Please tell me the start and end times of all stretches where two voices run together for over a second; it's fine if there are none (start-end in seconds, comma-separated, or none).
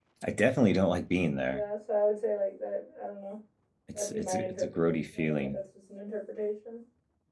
3.9-5.6